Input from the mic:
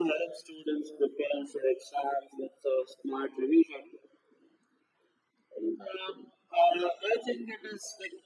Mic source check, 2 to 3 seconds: echo only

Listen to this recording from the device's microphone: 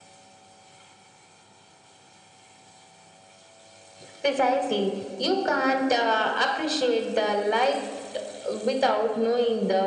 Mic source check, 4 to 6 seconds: echo only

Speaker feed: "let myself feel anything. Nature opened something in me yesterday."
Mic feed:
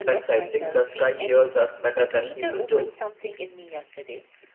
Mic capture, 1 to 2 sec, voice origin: both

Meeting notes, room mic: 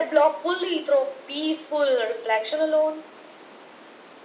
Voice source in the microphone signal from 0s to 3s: echo only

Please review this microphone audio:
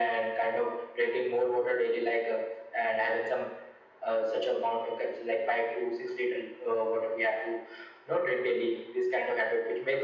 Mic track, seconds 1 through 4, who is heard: echo only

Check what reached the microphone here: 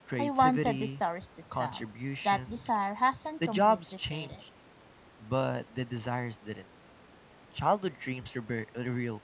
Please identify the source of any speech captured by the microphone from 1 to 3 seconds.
echo only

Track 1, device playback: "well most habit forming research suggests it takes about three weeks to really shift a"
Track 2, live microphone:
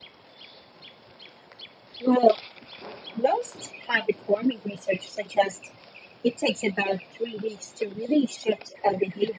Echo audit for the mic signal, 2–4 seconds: echo only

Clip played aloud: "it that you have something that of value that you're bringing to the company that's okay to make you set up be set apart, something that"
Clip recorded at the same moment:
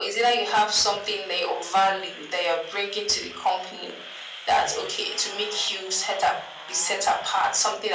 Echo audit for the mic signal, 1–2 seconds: echo only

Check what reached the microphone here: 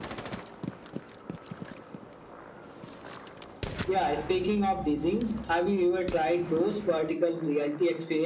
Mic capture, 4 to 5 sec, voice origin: echo only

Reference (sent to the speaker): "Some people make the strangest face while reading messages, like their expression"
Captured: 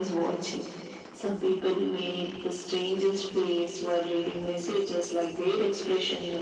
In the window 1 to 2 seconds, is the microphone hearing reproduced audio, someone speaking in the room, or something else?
echo only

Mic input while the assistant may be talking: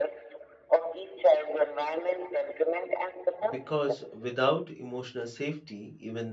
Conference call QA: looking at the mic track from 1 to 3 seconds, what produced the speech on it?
echo only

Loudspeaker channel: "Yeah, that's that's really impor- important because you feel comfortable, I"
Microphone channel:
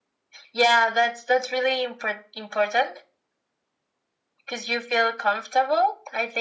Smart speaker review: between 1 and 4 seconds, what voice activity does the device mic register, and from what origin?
echo only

